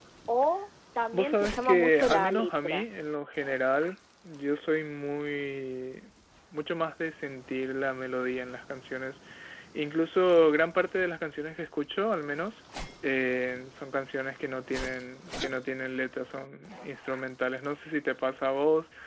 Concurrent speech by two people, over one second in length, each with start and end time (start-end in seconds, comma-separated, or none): 1.1-2.8